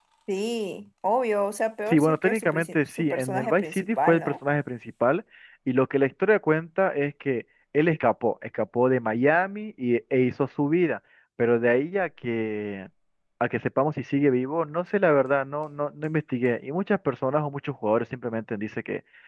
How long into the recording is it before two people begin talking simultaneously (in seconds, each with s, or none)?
1.9 s